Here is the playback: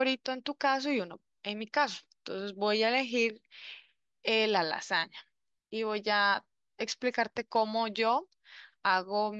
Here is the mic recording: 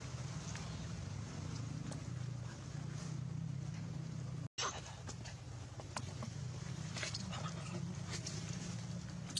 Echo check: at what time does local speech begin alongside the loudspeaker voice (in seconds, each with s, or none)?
none